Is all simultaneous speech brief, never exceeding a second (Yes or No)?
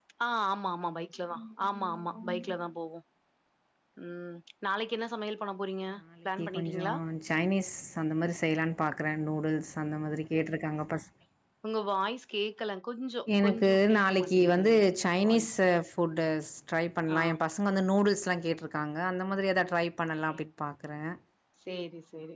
No